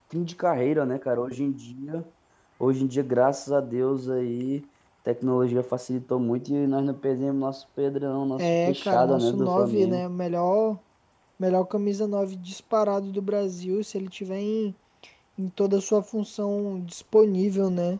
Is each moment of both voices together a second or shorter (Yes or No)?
No